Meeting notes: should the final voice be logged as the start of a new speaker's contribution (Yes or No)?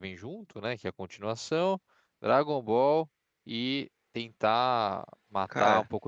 No